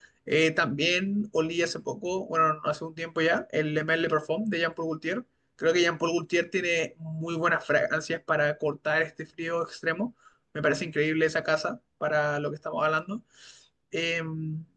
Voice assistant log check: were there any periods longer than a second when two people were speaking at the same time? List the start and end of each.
none

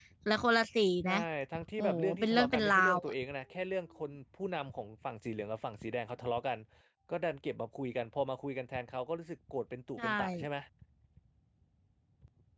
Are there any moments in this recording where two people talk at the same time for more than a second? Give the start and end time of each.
1.8-3.1

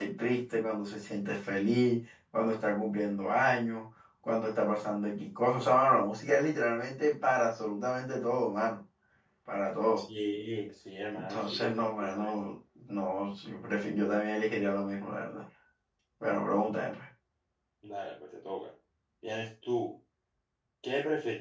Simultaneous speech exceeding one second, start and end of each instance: 11.1-12.4

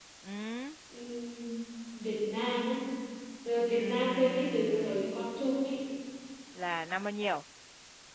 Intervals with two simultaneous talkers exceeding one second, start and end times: 3.8-5.1

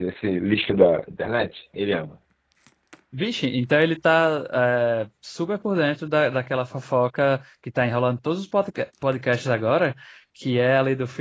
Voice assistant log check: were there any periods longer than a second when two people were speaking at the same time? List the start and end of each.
none

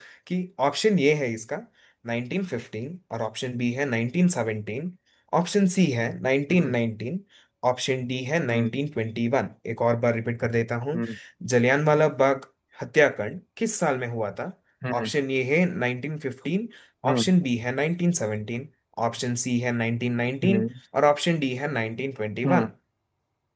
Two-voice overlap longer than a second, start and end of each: none

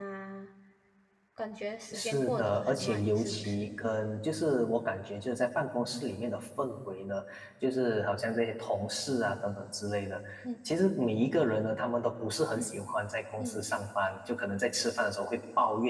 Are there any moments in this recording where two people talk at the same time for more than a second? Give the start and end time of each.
1.9-3.7

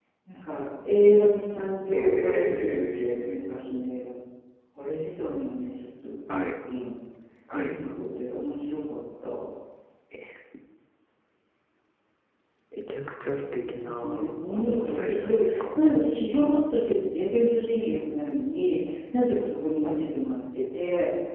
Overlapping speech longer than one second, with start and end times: 1.9-3.5, 13.6-15.8

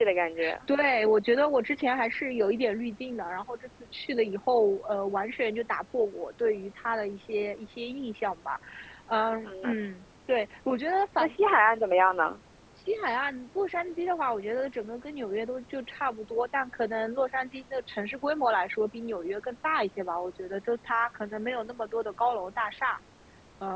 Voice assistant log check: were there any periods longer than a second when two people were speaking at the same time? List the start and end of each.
none

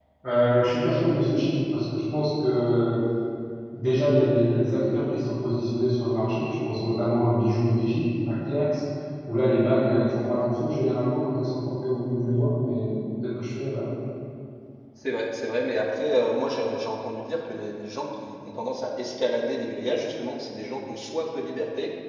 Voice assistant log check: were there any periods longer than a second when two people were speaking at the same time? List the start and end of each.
none

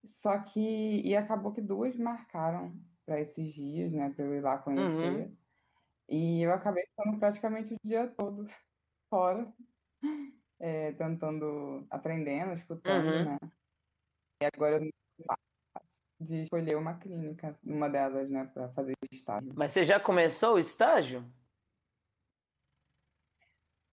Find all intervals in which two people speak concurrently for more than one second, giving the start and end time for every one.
none

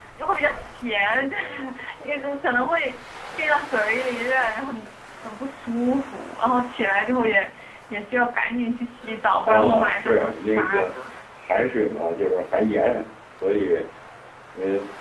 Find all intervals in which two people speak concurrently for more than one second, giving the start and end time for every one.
9.5-10.9

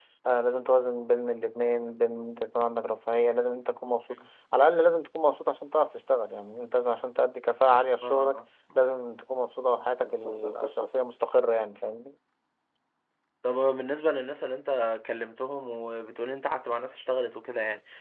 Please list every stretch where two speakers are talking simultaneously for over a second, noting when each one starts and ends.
none

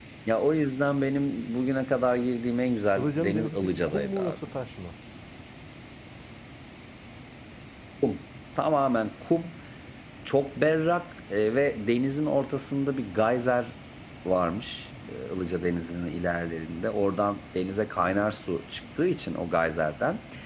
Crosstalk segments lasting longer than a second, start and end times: 3.0-4.4

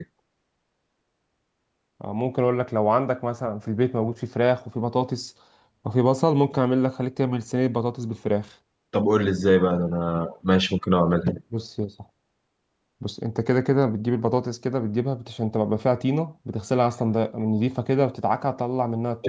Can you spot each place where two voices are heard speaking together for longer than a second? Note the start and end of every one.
none

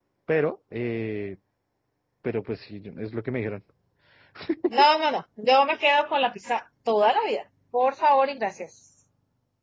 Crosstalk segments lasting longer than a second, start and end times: none

